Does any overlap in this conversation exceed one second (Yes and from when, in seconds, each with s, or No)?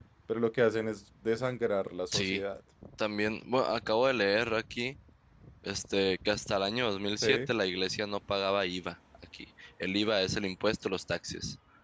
No